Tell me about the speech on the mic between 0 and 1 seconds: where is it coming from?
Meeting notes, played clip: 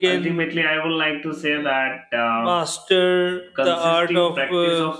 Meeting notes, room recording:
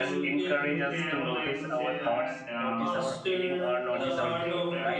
both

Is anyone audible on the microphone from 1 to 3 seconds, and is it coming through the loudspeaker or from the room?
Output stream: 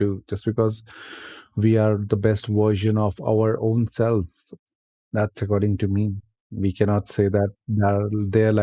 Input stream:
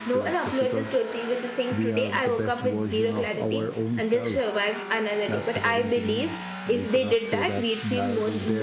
both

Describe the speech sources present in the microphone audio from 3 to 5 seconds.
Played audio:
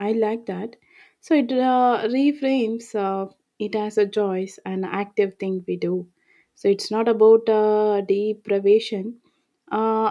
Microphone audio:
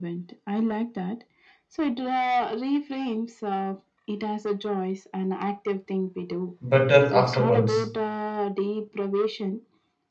echo only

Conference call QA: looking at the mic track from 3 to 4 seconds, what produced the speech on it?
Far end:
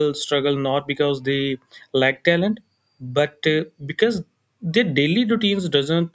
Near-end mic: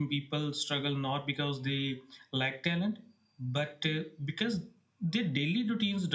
echo only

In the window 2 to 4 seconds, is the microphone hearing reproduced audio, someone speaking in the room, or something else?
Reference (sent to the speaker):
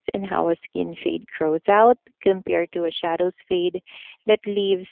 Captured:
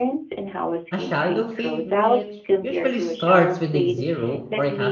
both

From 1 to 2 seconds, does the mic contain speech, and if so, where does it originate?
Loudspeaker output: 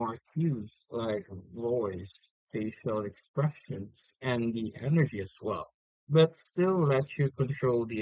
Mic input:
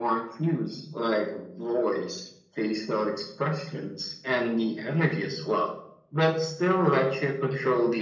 echo only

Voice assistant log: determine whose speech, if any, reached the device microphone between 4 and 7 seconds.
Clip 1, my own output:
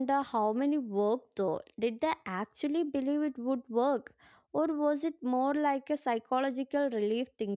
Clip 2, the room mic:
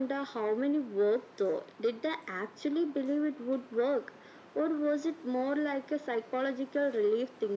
echo only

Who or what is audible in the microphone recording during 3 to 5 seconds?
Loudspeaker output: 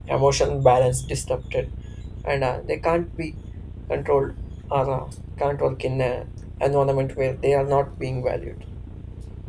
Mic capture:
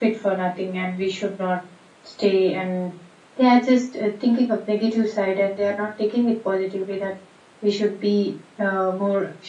user only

